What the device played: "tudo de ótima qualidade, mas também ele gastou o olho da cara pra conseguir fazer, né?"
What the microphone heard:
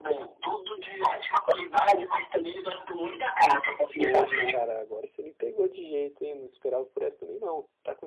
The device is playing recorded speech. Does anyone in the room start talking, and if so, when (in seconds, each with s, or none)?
4.0 s